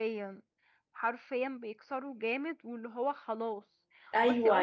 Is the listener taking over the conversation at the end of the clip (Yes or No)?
Yes